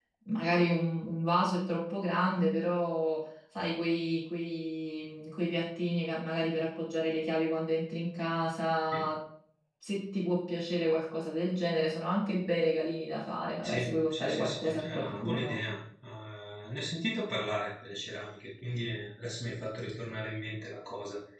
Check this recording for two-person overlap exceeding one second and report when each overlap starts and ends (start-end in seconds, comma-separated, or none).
13.6-15.6